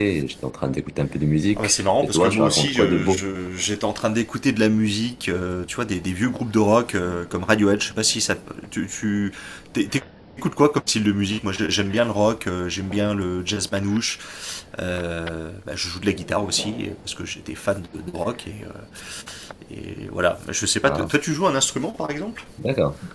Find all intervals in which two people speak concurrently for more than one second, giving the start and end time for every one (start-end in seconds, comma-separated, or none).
1.6-3.2